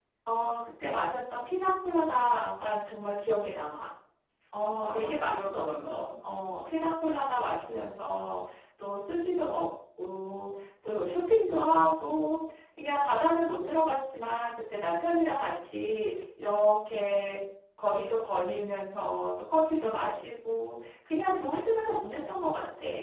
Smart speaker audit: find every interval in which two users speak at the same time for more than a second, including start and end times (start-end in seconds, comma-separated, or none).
4.8-6.2